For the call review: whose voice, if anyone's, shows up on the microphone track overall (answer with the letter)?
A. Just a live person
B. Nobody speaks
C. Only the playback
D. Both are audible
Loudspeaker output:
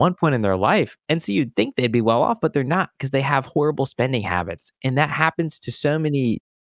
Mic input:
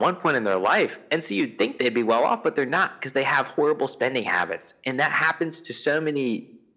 C